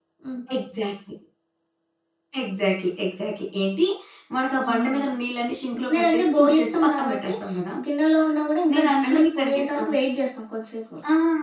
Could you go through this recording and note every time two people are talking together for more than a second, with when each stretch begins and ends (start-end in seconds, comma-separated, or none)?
5.8-7.3, 8.7-9.9